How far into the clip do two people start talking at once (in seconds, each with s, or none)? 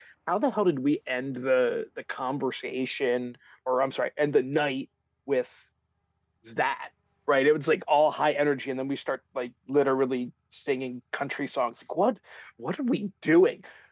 none